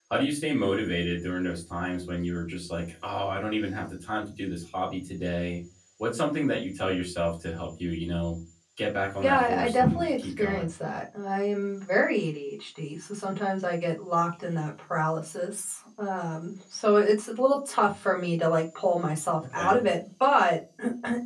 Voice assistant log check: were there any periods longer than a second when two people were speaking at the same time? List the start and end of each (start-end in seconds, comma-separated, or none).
9.2-10.7